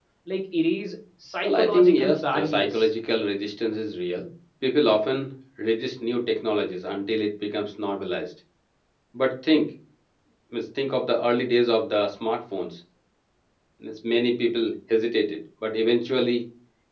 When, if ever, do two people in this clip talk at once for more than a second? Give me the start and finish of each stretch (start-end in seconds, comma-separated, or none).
1.4-2.9